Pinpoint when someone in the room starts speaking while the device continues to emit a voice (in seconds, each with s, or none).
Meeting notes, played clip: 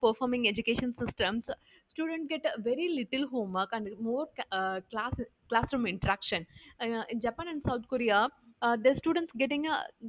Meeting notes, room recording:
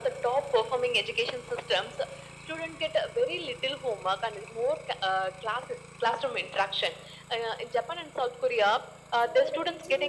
9.1 s